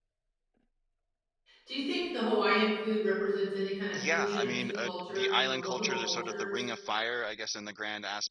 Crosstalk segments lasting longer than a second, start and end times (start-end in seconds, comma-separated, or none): 3.9-6.6